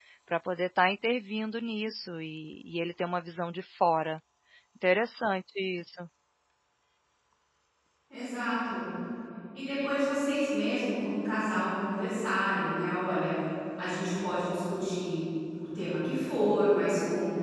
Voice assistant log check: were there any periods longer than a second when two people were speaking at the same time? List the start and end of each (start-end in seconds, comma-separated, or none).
none